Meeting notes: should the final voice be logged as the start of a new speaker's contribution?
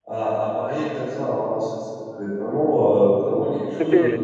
Yes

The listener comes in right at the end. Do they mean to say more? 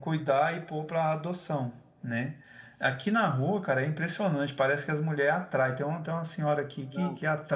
No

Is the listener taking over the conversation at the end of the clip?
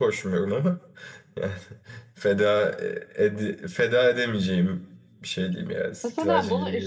Yes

